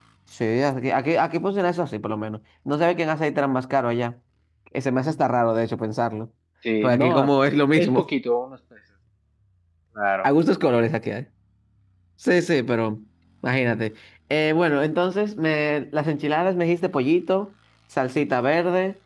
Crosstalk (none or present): present